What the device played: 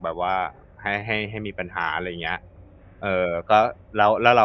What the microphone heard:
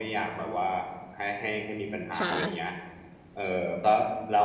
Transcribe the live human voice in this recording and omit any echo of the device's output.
ค่ะ

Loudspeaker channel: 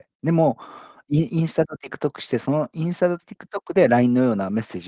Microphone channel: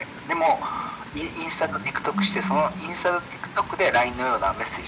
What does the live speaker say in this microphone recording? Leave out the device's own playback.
うんうん。

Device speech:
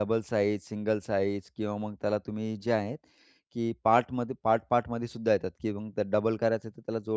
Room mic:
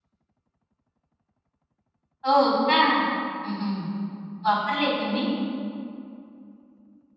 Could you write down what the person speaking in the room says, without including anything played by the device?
हो का? हं, हं. वापरले तुम्ही?

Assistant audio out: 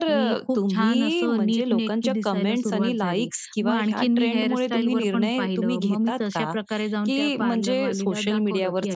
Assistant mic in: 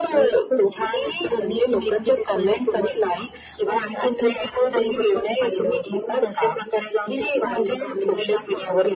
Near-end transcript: none

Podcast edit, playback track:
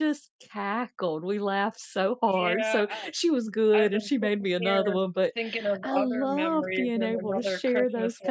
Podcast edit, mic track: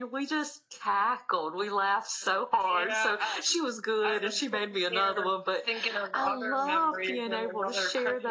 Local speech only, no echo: none

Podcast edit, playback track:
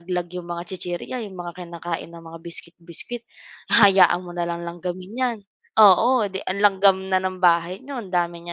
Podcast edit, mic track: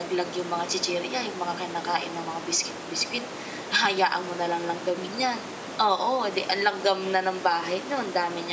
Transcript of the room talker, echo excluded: none

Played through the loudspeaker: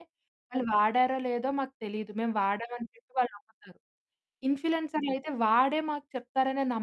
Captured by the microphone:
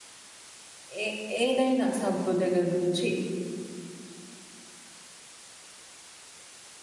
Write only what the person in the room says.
ఏ ఏదైనా సబ్బు దగ్గర నుంచి.

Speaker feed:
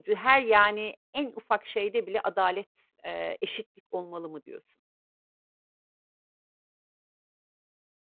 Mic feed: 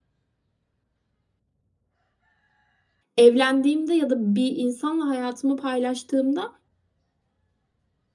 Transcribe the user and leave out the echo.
Evlendiğimde ya da bir insanla hayatımı paylaştığımda,

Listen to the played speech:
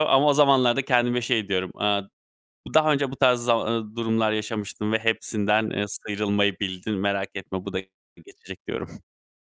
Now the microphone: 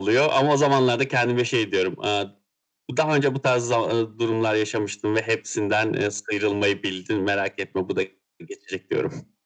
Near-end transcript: none

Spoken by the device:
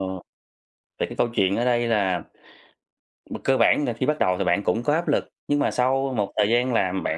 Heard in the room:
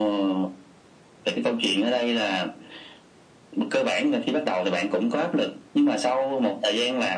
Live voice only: none

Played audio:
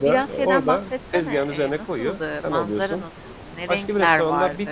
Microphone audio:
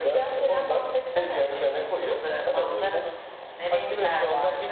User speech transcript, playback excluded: none

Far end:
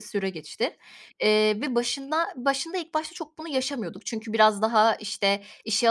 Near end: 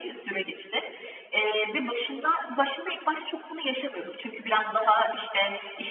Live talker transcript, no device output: none

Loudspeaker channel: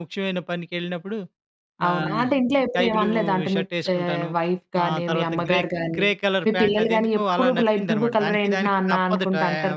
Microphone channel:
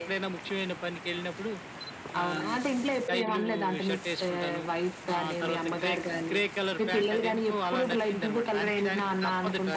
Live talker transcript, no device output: none

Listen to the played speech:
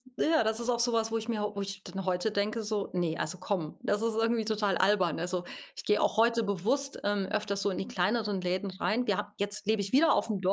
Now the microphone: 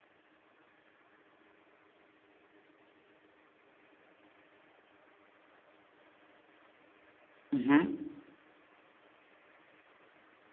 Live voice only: Mhm.

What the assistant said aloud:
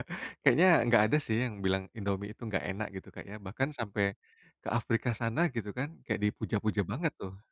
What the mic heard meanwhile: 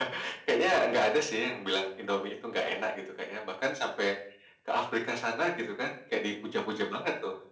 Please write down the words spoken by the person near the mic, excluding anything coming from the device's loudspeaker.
none

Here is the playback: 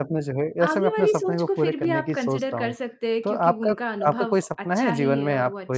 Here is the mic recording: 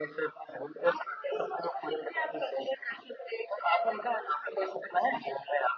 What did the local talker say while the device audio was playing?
none

